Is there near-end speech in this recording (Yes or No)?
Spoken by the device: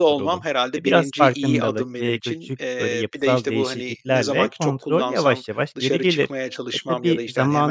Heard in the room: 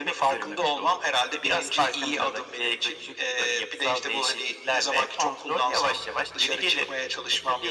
No